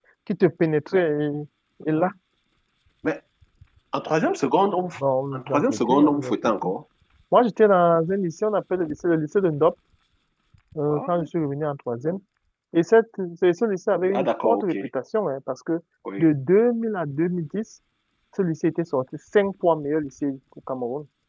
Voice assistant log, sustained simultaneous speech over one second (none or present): present